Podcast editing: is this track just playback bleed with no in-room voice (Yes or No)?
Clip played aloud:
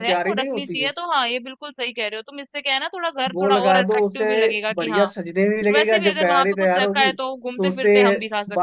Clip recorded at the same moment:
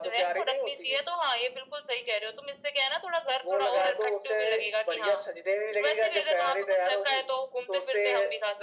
Yes